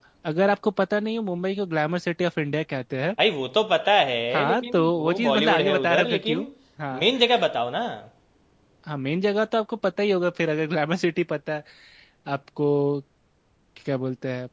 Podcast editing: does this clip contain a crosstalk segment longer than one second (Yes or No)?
Yes